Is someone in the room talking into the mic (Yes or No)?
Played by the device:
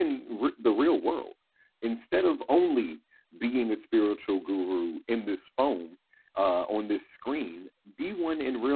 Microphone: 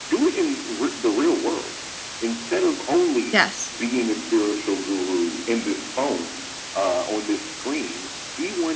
Yes